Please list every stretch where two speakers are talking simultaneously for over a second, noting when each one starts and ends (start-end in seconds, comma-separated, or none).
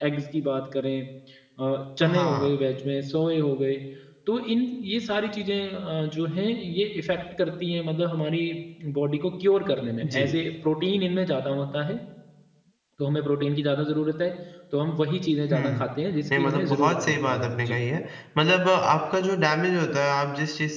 16.4-17.8